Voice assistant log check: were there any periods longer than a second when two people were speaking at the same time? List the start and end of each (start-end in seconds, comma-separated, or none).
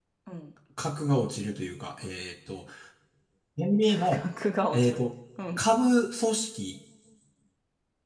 none